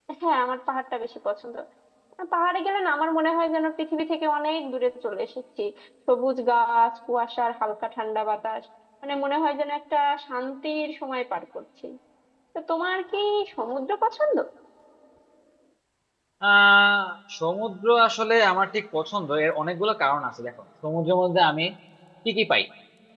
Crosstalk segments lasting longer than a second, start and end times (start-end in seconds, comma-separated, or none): none